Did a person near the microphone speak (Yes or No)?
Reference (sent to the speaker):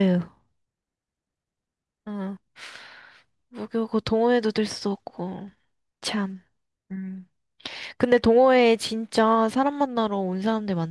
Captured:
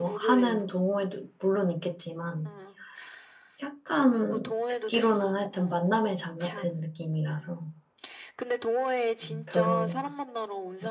Yes